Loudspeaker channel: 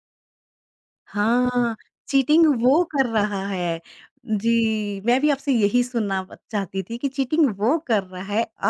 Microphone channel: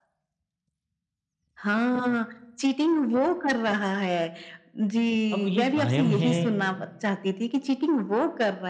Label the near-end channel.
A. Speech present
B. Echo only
A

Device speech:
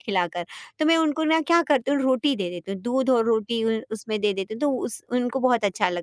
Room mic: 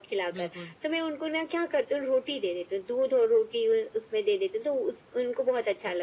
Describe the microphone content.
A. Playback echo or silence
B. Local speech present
B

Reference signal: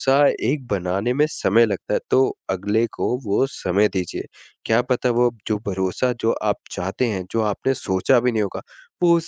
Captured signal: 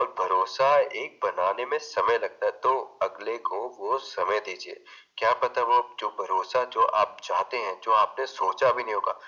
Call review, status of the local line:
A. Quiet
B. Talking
A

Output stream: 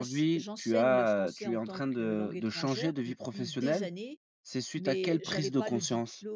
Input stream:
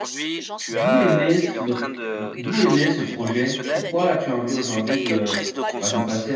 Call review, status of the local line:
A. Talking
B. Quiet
A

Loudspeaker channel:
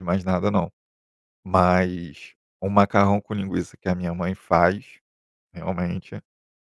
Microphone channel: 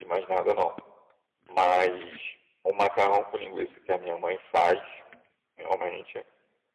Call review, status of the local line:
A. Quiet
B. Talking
A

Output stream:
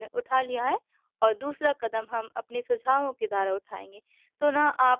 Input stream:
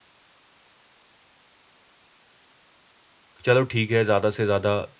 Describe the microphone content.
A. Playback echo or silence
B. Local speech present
B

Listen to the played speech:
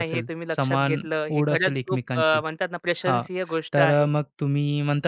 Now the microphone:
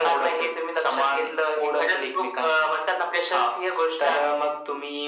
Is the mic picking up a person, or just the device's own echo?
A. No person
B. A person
A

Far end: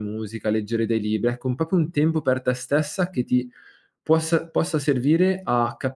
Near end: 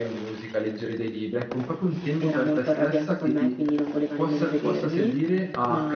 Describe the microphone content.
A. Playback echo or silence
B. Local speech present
B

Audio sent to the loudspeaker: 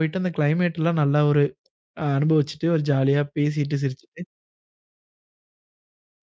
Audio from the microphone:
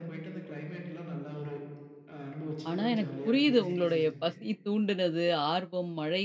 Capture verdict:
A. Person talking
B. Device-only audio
A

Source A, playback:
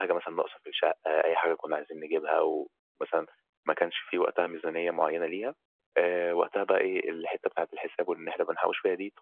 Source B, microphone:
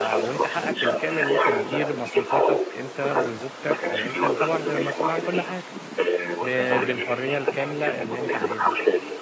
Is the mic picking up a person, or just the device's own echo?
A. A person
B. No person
A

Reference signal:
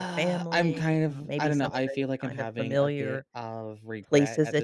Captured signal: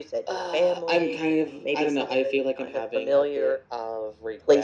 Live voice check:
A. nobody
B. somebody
A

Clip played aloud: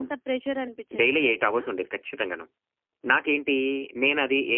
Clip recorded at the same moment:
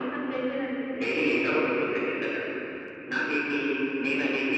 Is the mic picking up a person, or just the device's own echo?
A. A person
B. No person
B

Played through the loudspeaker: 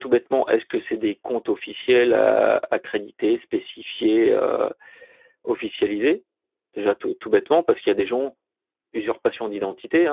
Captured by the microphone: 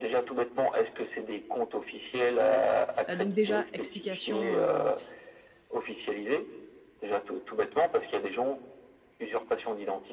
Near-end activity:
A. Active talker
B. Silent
A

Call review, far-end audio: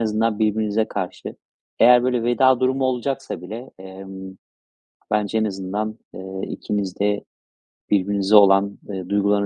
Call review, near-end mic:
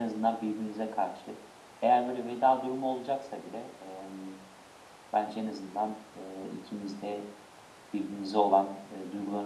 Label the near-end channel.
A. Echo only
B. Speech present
A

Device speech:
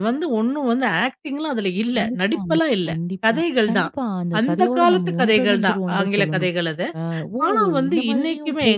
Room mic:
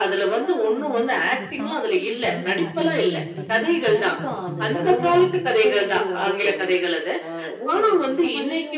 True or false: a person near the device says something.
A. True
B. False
A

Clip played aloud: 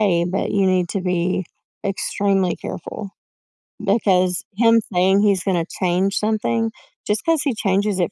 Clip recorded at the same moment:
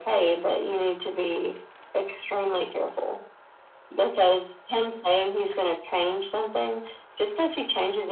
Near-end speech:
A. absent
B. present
A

